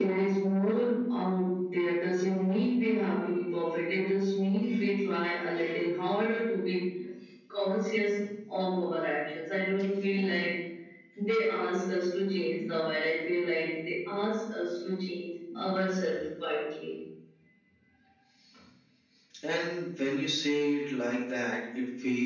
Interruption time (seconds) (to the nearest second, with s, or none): none